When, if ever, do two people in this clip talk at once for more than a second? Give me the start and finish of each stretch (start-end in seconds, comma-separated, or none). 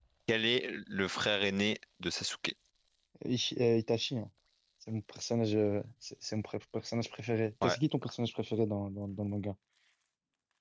none